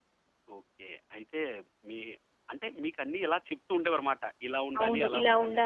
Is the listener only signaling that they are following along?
No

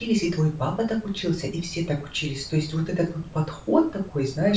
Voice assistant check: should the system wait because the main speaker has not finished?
Yes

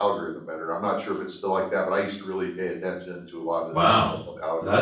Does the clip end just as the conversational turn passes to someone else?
Yes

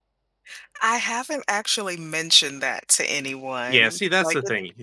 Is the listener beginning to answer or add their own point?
Yes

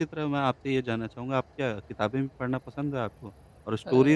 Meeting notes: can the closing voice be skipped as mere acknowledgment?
Yes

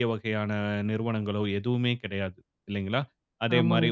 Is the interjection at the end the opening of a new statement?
No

